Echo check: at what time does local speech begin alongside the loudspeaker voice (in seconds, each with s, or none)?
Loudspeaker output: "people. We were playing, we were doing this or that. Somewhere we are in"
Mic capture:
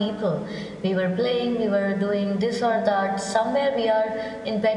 none